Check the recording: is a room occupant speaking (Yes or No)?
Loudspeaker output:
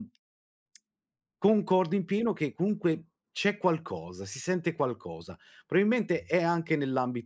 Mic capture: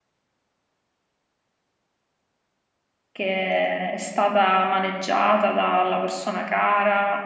Yes